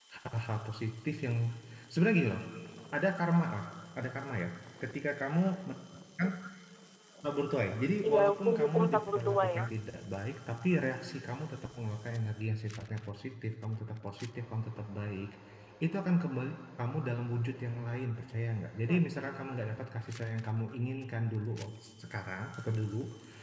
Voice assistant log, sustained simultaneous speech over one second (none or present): present